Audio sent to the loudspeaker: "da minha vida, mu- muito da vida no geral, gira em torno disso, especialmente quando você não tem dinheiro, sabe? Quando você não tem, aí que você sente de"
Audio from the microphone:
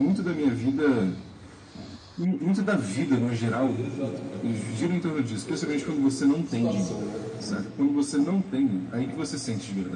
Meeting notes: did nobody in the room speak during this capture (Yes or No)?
No